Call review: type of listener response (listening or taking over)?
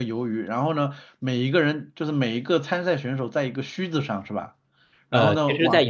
taking over